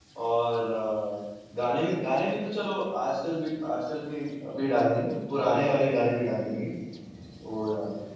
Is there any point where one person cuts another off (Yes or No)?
No